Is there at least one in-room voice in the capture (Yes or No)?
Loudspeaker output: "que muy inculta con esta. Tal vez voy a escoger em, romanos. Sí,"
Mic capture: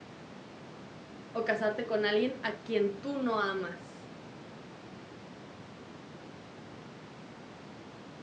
Yes